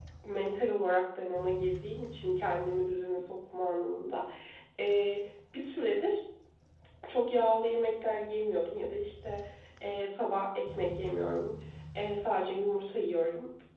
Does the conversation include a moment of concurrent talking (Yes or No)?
No